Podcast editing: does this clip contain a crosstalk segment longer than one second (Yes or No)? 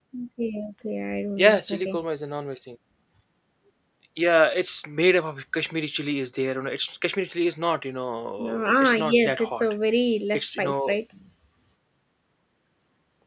Yes